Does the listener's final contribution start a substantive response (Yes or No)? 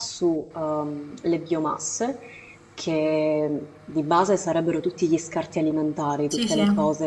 No